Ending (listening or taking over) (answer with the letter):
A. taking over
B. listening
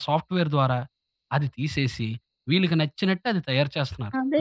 A